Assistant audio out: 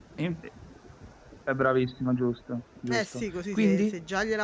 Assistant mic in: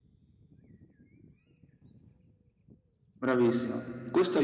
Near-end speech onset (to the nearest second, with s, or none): 3 s